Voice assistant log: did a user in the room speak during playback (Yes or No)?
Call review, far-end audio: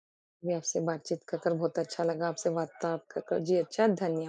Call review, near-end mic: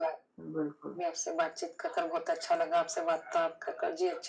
Yes